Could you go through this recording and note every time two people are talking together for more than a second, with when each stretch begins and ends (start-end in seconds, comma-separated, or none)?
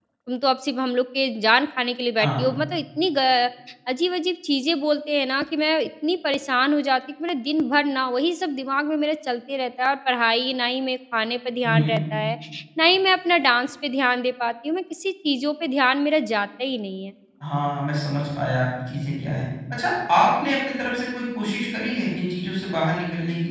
none